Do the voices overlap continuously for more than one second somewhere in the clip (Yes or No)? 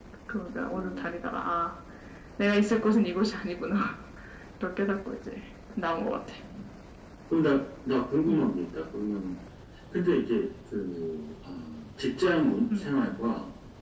No